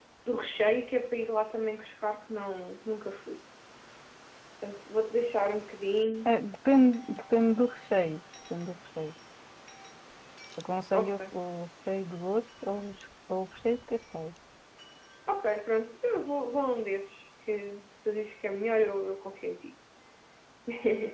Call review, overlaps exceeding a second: none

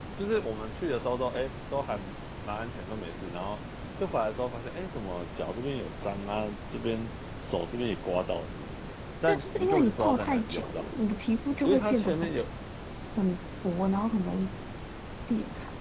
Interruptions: present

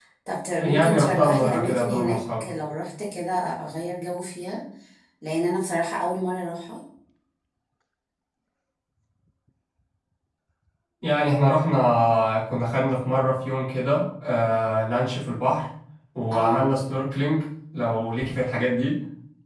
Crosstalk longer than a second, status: present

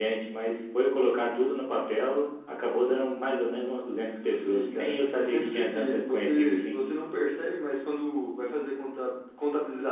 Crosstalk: present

